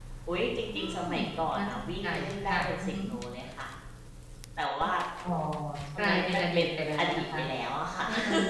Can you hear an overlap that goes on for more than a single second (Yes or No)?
Yes